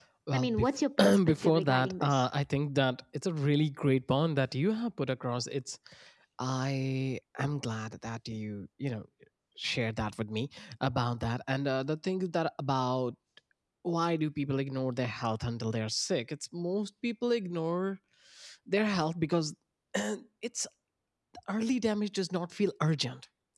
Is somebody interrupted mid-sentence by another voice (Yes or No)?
Yes